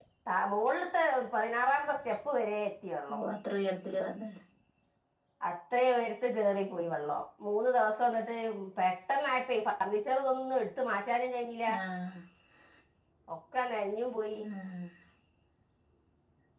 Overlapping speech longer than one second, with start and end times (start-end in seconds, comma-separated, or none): none